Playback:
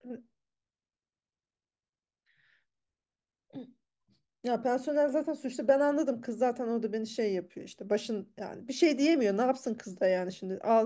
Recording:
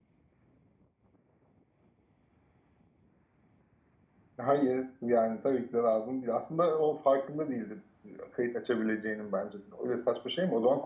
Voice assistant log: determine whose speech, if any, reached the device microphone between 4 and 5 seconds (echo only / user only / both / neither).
user only